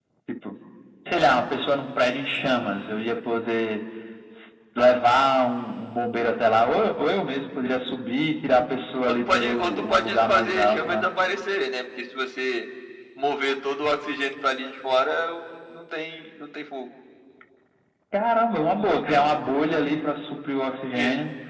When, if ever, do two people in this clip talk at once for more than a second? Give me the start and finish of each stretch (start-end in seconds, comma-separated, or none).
9.3-11.1